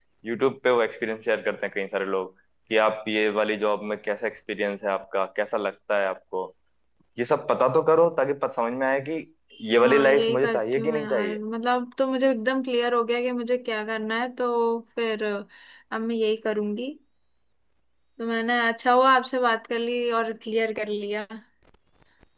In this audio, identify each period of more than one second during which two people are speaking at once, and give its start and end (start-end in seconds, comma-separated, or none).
9.8-11.4